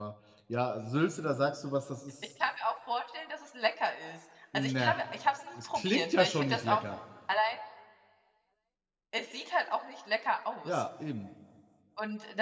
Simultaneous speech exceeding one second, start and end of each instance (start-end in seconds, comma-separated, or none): 5.6-6.8